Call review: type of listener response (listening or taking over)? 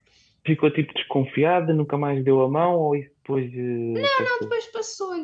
taking over